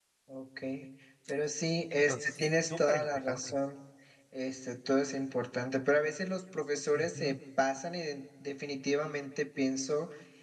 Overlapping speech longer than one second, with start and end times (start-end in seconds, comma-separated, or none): 2.0-3.4